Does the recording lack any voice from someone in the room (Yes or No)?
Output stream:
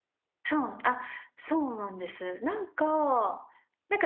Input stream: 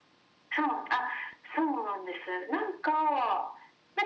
Yes